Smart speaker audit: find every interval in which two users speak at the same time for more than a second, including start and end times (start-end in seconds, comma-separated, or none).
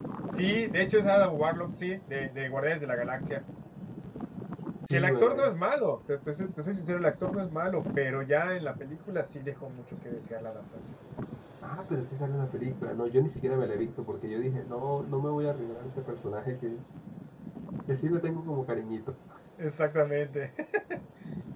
none